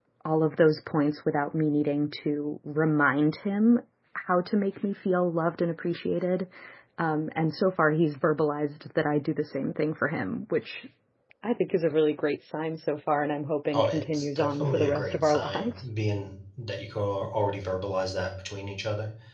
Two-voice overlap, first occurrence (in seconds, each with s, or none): 13.7 s